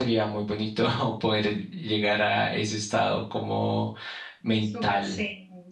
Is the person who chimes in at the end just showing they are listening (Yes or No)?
No